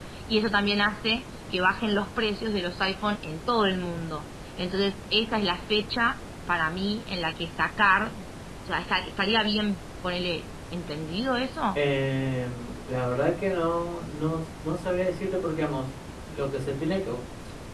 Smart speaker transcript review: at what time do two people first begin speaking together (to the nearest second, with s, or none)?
none